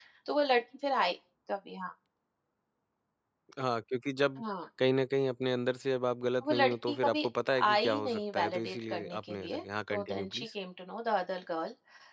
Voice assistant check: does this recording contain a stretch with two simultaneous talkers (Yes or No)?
Yes